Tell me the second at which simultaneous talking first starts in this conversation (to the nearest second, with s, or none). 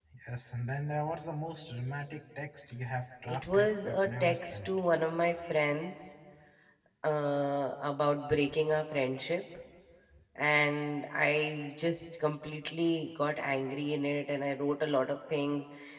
3 s